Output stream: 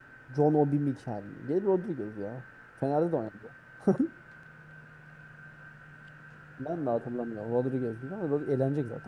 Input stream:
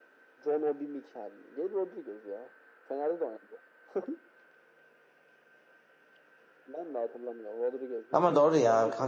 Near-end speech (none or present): present